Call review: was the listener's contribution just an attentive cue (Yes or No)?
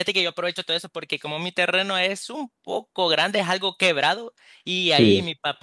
Yes